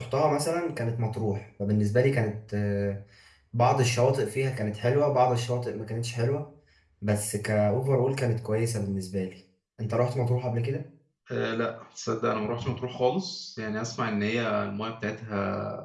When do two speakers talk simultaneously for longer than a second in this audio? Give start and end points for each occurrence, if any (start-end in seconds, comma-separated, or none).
none